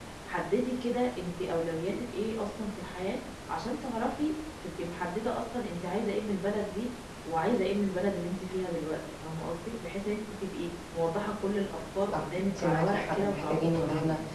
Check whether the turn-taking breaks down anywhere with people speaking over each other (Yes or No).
Yes